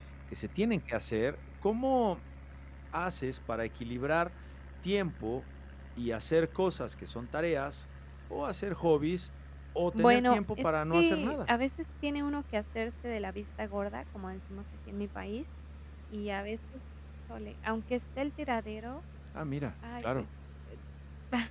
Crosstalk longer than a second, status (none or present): present